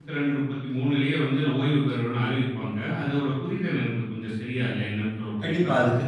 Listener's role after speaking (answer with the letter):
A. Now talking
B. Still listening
A